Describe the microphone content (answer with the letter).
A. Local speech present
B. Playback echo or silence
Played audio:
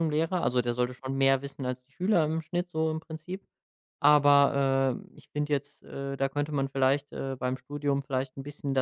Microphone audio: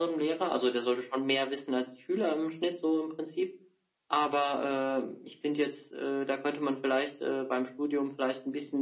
B